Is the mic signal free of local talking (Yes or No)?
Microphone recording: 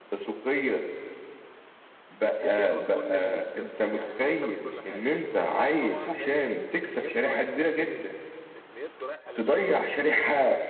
No